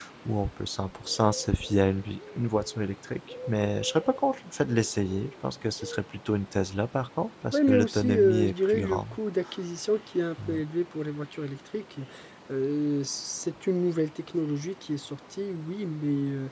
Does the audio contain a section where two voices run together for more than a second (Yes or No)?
Yes